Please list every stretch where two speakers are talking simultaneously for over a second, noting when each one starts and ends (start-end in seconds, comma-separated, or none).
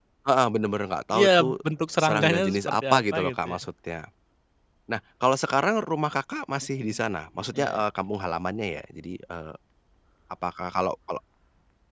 2.0-3.6